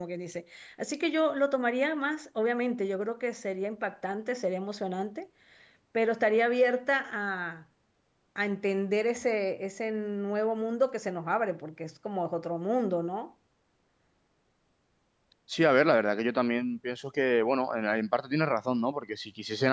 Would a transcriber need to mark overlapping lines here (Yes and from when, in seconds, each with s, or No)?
No